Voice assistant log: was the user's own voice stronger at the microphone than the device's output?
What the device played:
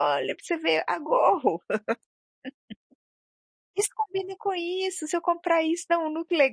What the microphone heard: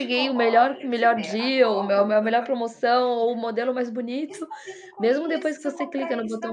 Yes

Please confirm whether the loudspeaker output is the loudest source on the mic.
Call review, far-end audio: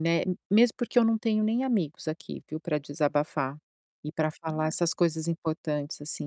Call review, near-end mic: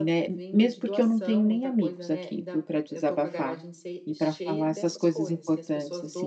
Yes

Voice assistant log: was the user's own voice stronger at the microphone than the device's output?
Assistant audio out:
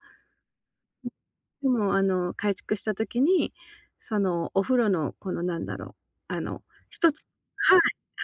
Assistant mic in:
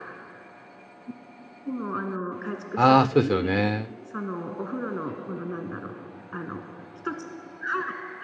Yes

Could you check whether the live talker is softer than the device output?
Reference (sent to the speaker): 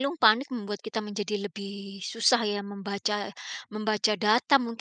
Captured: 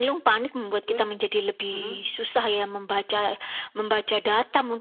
Yes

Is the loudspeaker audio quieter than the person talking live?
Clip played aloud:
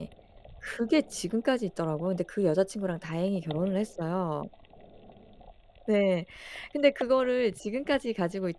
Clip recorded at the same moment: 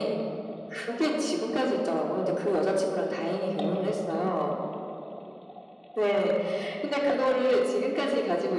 No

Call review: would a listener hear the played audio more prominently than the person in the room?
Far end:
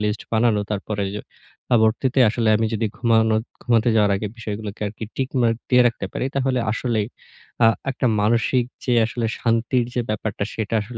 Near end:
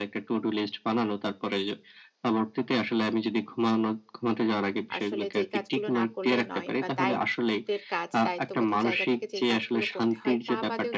Yes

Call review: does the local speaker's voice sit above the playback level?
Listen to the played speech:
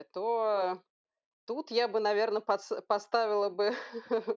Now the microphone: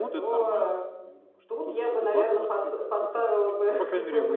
No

